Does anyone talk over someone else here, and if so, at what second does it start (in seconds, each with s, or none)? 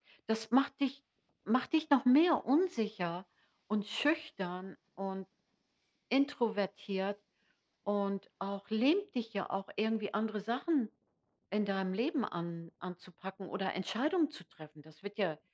none